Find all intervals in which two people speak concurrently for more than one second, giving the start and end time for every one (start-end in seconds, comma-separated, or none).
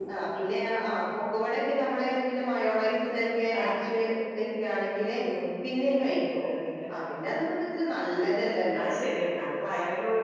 none